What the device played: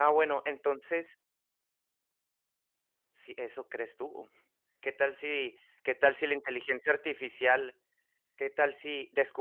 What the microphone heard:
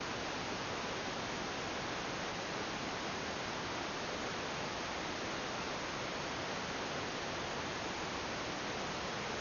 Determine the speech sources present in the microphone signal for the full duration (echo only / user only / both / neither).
neither